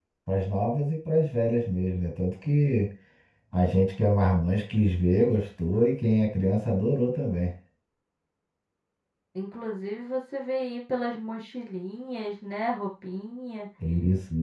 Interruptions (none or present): none